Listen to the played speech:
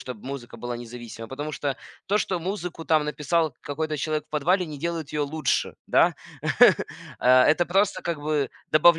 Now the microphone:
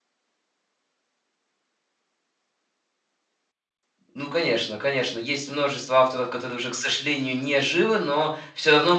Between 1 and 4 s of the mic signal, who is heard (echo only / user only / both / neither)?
neither